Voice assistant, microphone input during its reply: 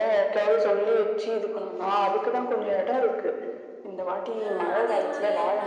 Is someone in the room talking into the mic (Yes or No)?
Yes